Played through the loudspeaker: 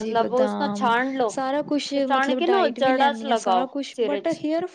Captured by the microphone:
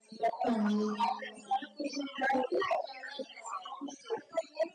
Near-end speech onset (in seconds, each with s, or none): 0.5 s